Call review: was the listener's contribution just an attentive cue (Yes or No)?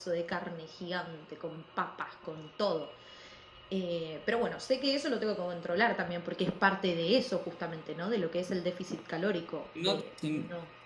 No